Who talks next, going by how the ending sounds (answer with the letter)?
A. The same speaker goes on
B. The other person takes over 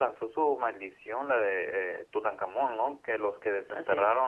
A